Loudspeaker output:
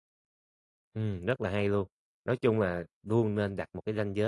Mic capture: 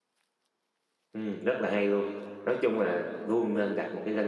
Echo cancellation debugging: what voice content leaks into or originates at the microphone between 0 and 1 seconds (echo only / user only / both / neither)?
neither